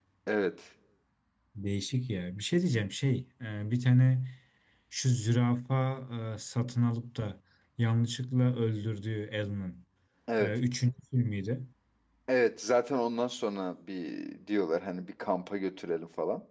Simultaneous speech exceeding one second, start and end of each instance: none

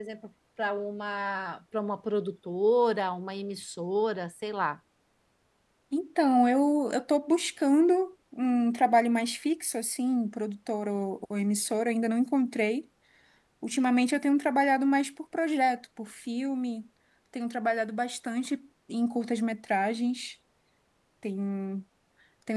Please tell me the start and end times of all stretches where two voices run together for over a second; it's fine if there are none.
none

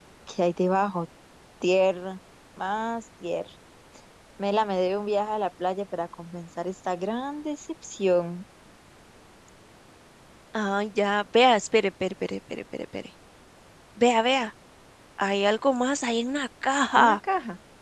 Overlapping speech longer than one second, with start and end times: none

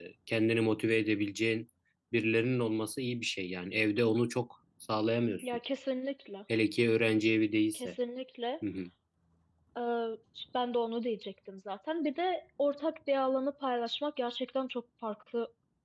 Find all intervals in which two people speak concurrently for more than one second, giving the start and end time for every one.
none

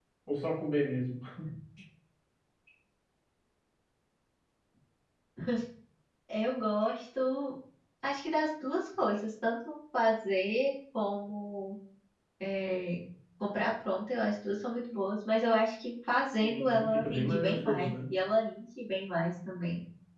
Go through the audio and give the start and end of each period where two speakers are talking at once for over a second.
16.4-18.1

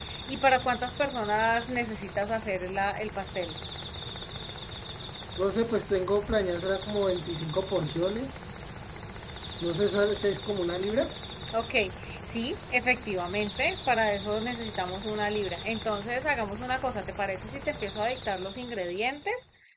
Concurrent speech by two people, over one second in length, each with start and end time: none

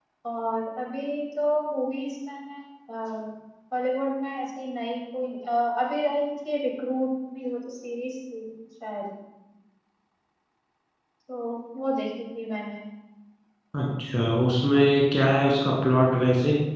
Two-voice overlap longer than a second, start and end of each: none

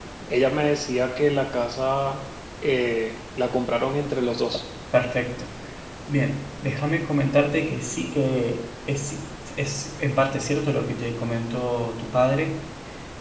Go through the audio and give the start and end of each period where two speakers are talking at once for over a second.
none

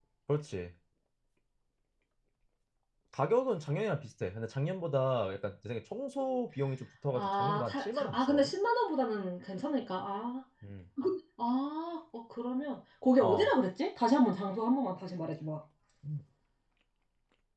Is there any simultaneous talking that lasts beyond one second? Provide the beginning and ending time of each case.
7.1-8.5

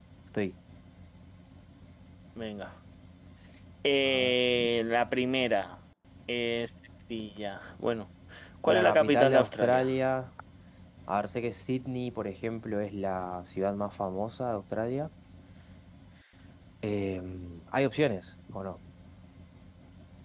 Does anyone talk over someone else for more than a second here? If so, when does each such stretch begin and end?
8.7-9.9

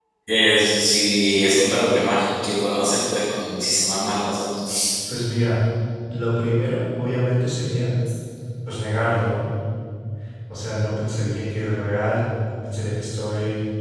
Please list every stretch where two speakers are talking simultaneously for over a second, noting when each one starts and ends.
none

